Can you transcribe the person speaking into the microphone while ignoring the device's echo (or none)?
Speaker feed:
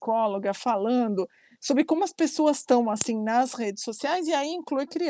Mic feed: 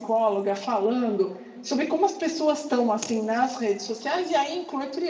none